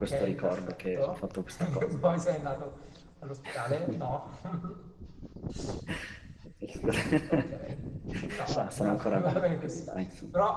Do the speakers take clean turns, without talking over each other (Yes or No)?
No